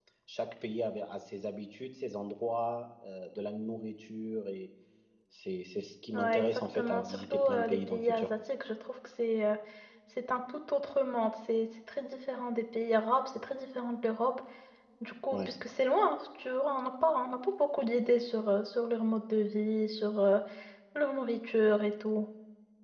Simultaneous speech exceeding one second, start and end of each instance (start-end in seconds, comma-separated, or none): 6.1-8.3